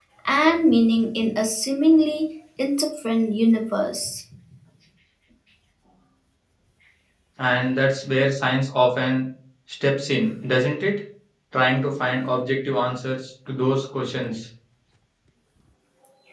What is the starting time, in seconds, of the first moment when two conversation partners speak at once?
none

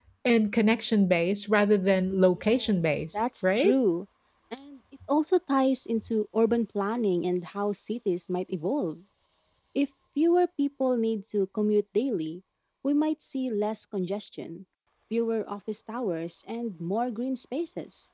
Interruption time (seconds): 2.3 s

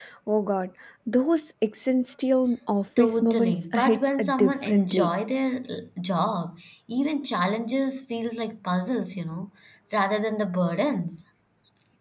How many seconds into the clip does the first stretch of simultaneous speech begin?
3.0 s

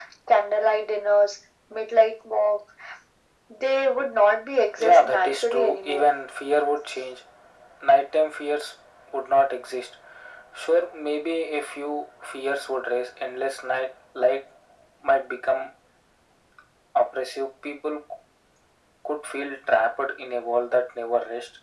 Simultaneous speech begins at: 4.8 s

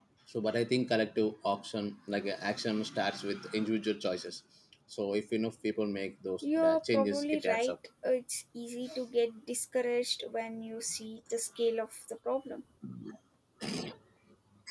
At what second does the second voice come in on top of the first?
6.4 s

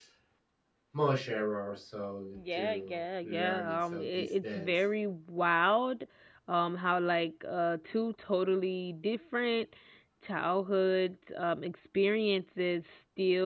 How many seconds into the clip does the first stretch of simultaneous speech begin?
2.3 s

